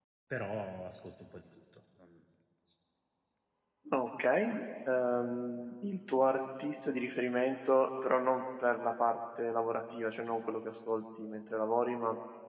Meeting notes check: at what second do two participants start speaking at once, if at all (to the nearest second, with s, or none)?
none